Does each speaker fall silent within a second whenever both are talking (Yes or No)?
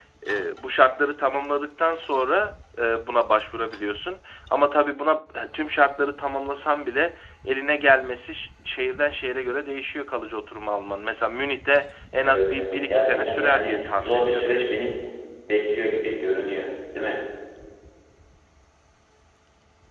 No